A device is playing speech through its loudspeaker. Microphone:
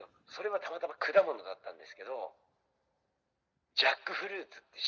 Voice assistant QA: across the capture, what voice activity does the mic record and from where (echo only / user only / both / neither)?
echo only